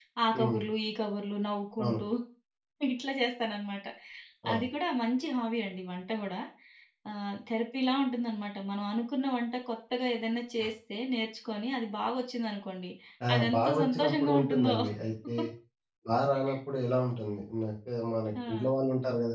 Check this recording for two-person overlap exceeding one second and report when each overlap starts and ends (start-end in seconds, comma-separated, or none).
13.4-14.7